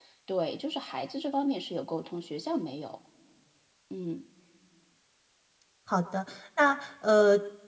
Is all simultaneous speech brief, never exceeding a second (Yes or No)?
Yes